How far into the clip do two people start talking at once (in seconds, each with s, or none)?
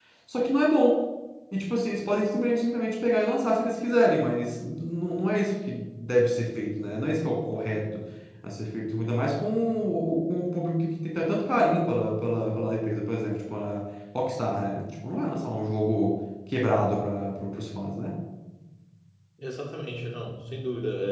none